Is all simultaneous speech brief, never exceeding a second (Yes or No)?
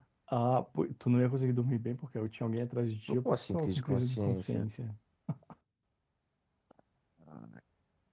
No